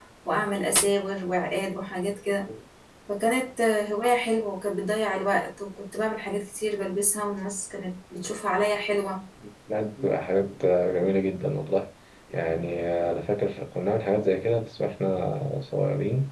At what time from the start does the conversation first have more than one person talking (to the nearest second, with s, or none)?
none